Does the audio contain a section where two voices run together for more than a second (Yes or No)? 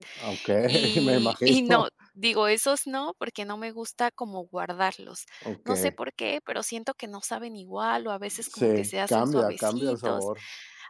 Yes